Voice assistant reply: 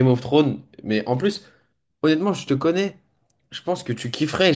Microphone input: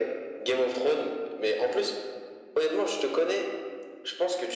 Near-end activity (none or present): none